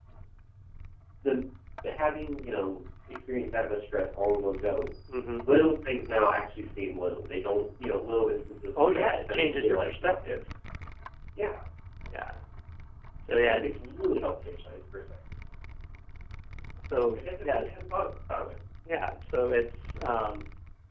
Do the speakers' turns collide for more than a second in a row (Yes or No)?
Yes